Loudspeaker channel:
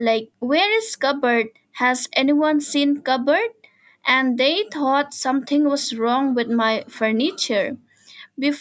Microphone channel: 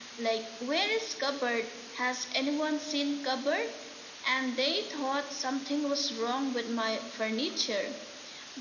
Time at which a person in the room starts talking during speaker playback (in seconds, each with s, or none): none